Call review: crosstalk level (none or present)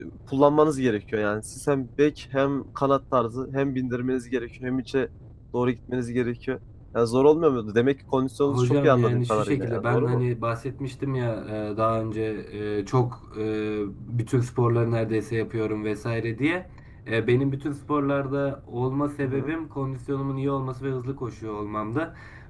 present